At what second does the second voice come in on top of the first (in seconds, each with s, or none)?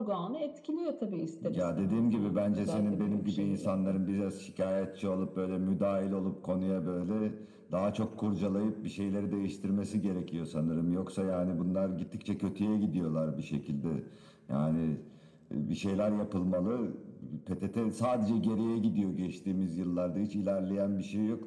1.4 s